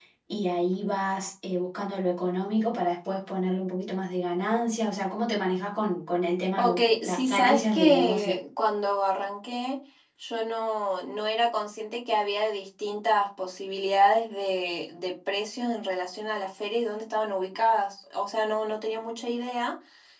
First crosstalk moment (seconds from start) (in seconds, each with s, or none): 6.6 s